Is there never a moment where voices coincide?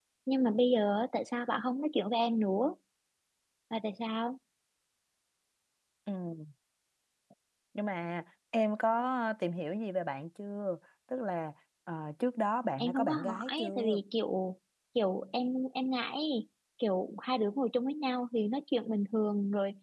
No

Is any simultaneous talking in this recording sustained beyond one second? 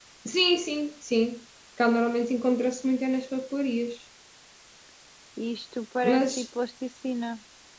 No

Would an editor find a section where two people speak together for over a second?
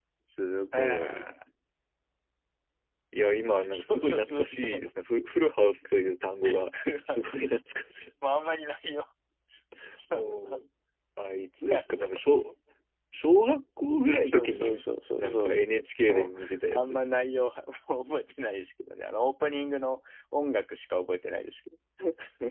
Yes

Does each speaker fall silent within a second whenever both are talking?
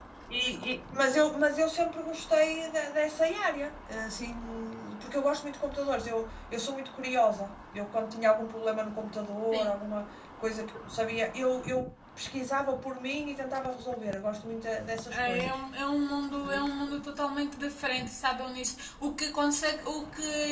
Yes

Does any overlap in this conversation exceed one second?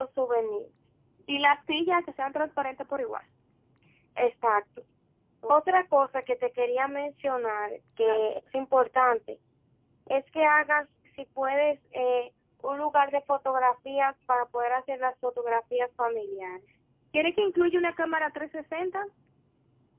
No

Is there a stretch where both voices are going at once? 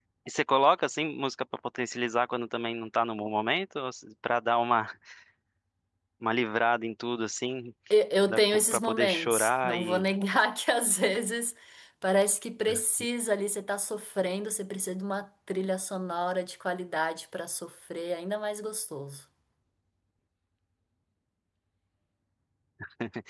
Yes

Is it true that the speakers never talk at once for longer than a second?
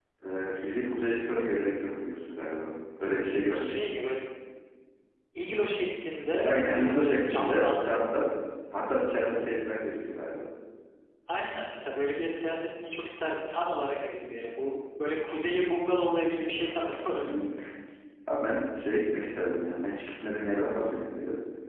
No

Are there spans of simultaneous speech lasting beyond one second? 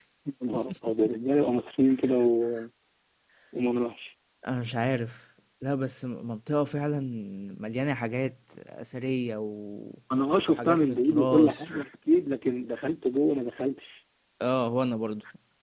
Yes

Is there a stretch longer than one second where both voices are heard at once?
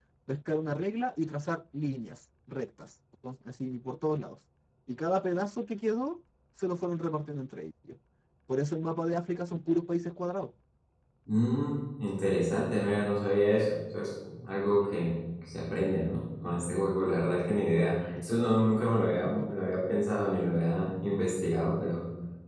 No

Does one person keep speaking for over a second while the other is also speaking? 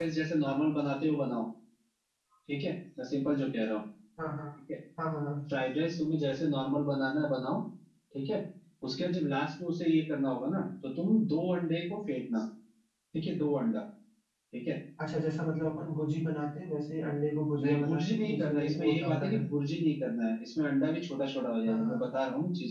Yes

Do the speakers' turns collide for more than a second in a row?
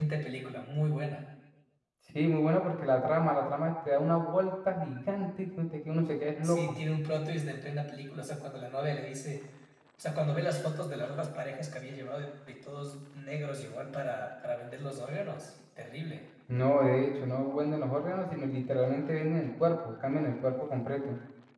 No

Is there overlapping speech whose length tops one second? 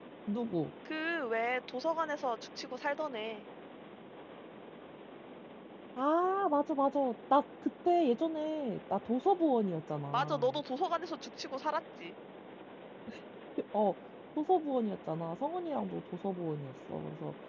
No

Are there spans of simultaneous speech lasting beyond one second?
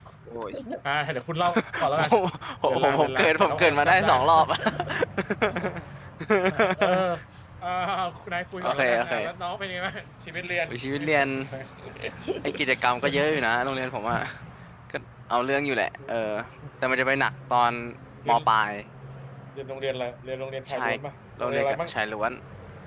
Yes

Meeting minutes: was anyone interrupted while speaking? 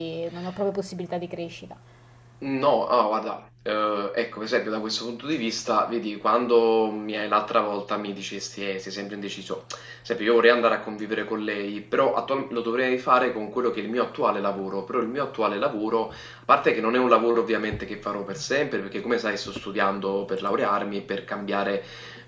No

